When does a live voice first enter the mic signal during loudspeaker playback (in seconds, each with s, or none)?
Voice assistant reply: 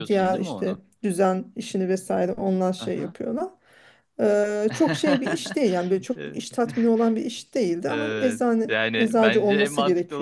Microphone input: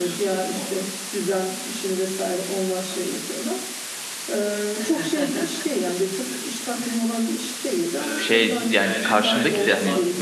8.2 s